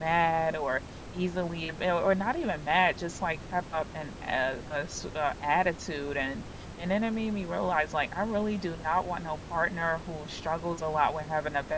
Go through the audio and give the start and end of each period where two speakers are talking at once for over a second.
none

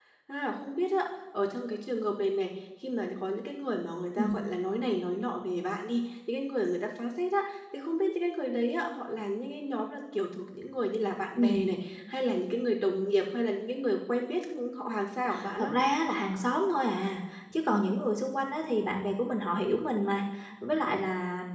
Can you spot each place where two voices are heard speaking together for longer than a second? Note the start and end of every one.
none

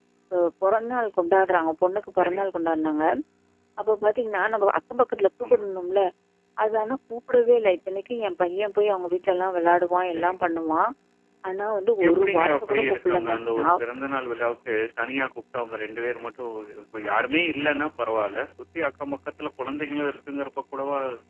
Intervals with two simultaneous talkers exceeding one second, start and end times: 12.1-13.8

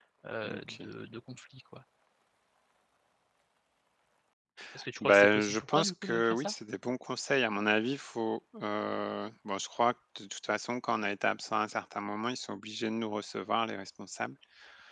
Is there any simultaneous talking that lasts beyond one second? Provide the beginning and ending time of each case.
5.0-6.5

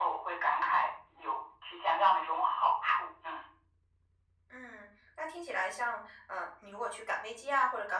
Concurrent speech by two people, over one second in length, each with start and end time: none

